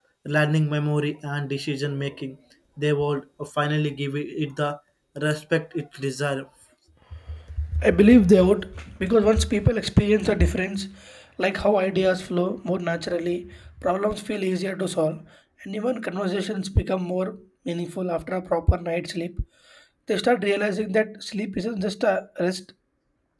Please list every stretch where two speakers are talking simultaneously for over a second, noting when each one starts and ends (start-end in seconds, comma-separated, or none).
none